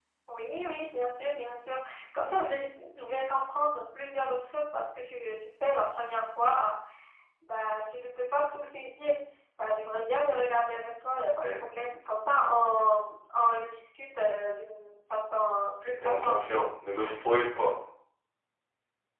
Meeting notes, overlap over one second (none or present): none